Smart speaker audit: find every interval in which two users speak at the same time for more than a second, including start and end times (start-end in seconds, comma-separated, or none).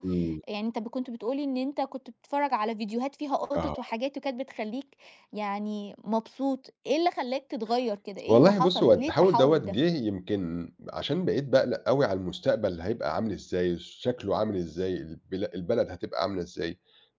8.3-9.7